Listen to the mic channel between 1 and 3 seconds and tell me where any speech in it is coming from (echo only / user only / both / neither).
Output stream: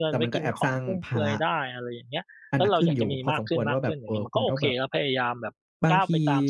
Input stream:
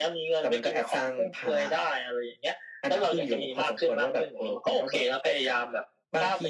echo only